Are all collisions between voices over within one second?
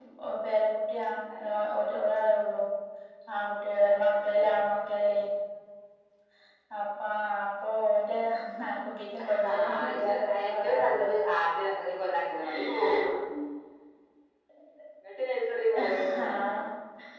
No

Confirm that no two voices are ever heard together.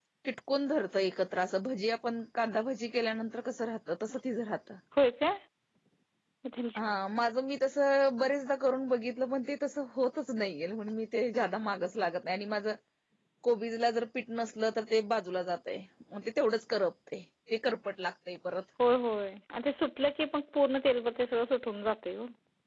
Yes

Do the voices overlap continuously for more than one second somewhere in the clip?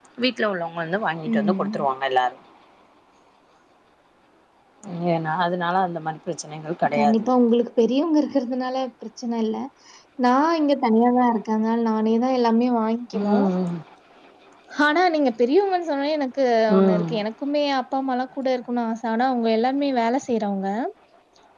No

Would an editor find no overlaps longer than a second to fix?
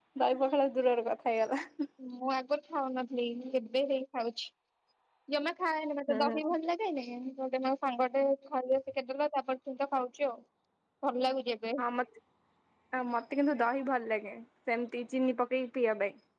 Yes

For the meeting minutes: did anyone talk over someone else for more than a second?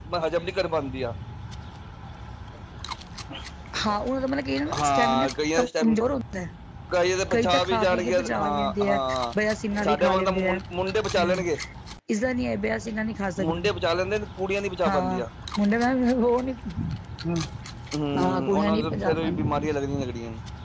Yes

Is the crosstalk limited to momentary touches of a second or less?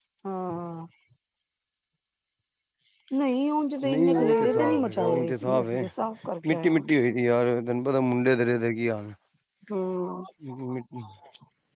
No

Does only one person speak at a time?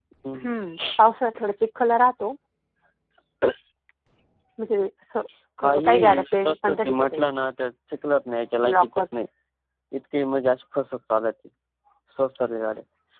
No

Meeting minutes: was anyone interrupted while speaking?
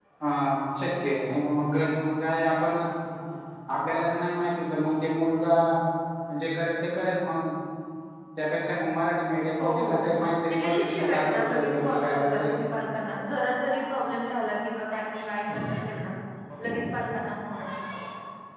Yes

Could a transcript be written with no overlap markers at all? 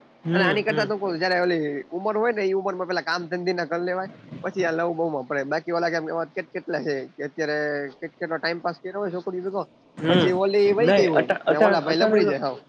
No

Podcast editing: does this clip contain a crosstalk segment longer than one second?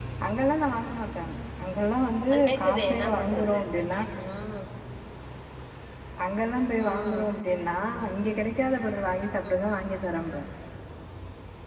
Yes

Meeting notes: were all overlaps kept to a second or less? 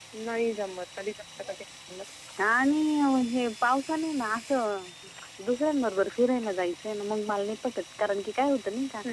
Yes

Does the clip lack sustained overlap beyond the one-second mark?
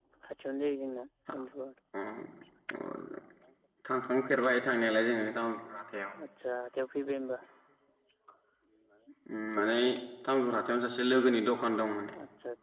Yes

